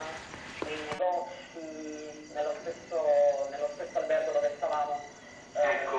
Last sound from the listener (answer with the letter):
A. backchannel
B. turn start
B